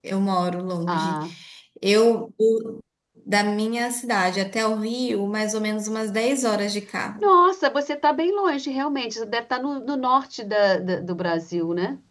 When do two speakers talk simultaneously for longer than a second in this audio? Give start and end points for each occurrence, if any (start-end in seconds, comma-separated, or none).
none